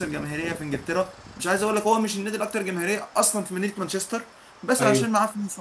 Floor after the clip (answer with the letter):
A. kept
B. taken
A